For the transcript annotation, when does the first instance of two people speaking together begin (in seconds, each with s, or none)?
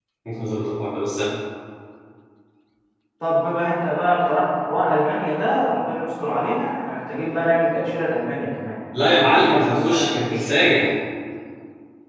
9.2 s